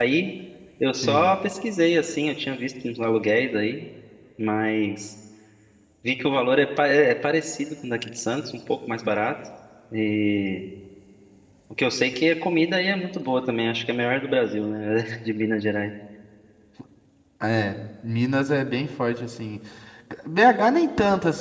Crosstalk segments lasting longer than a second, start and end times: none

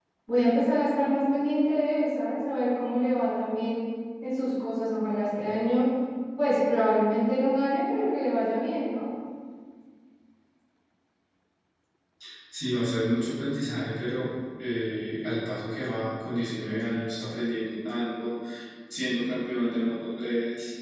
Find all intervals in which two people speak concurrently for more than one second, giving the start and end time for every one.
none

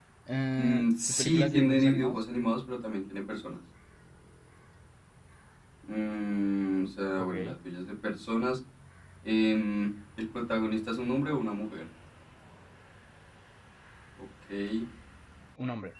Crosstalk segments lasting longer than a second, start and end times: 0.6-2.2

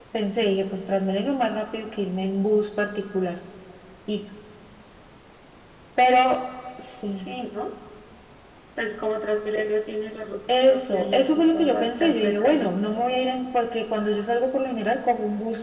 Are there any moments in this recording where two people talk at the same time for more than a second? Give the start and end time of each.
10.7-12.7

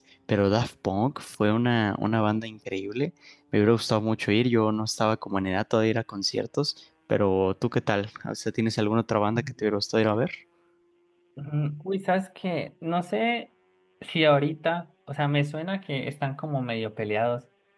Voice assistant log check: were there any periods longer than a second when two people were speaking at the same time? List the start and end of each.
none

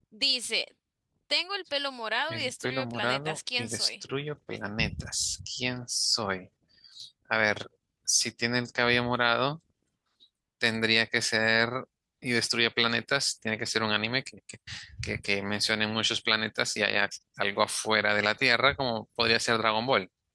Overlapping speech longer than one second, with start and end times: 2.3-3.9

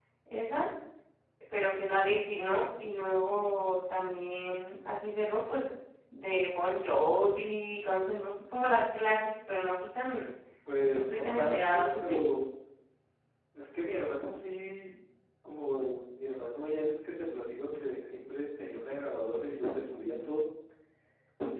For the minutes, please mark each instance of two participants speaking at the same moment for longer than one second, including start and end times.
10.9-12.2

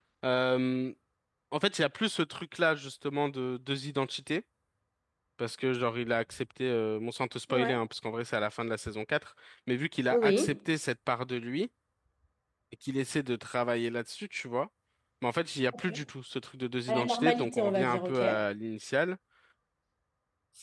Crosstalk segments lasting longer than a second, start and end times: 16.9-18.2

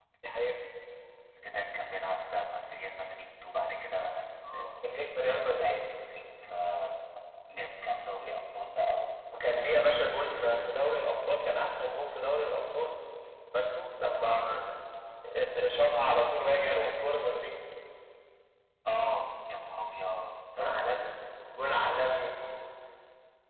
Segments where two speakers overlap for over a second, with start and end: 4.5-5.8

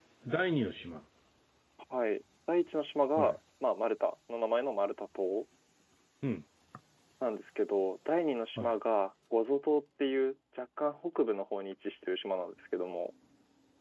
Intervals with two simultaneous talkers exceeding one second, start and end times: none

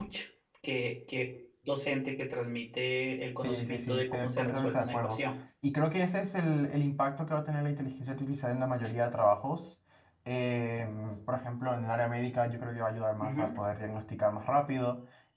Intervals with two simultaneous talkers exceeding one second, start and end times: 3.4-5.2

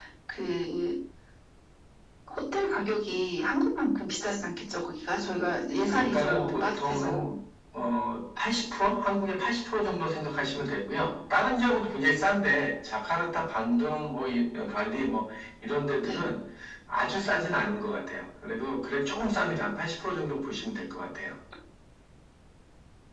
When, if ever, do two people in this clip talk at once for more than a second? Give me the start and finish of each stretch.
5.9-7.3

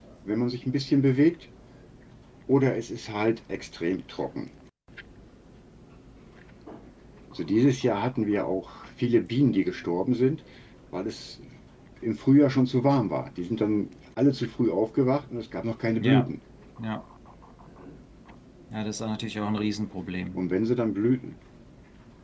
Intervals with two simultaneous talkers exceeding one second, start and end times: none

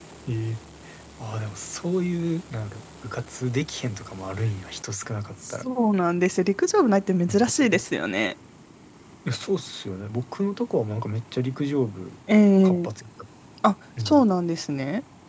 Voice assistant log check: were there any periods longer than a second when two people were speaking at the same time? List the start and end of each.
none

